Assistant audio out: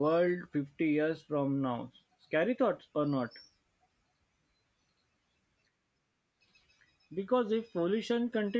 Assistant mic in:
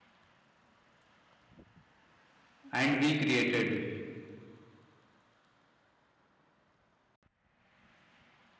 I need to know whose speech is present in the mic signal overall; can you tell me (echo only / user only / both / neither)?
user only